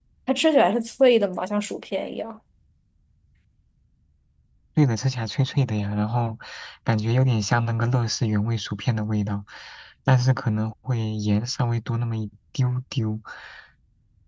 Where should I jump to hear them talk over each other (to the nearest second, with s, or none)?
none